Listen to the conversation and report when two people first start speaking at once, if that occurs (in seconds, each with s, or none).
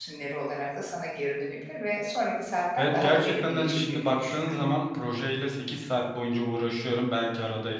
2.8 s